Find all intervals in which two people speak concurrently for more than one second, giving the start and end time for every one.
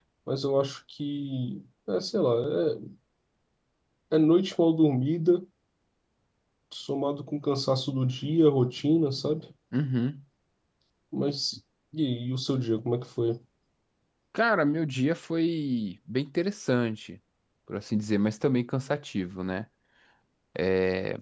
none

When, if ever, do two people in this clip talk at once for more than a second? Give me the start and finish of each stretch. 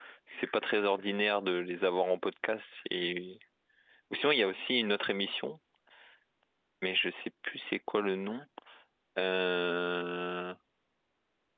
none

